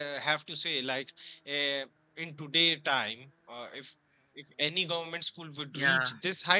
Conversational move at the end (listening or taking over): listening